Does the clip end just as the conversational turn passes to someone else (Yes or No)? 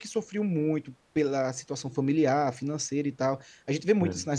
No